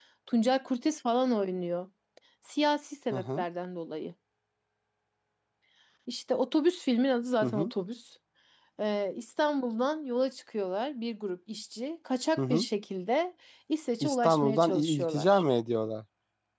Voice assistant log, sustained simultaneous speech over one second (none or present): present